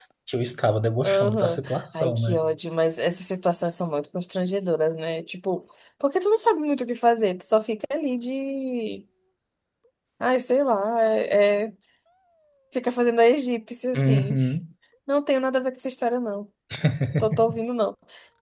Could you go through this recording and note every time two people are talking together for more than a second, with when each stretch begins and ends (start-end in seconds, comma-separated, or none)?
1.0-2.4